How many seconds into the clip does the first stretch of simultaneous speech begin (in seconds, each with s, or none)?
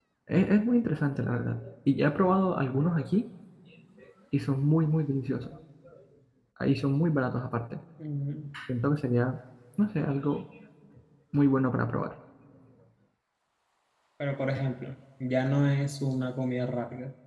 none